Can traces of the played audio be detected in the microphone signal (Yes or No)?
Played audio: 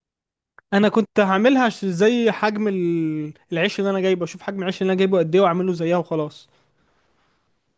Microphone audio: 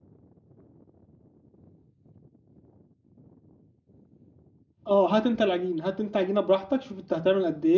No